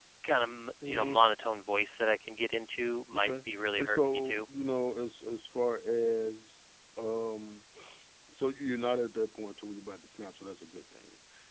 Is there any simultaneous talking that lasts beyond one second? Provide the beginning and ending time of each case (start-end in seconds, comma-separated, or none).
3.1-4.4